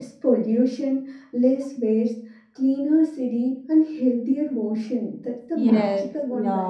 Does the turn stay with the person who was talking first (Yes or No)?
No